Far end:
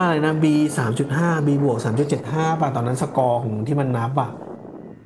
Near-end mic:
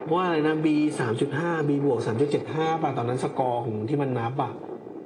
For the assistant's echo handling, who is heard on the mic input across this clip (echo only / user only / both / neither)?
echo only